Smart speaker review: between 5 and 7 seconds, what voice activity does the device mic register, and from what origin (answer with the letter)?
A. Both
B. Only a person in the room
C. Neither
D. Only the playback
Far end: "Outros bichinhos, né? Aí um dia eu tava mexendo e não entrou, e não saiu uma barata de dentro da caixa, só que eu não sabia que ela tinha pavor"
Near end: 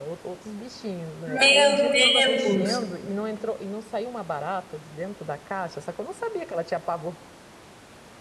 D